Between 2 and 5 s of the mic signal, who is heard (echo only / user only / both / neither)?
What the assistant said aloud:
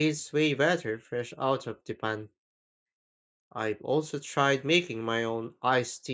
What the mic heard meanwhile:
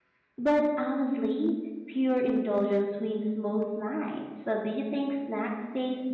user only